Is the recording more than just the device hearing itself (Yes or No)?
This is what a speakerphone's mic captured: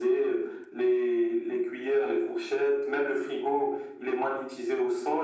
No